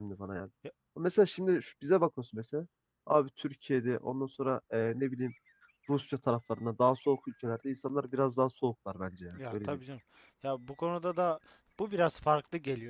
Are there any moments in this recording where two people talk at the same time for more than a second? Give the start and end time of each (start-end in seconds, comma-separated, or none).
none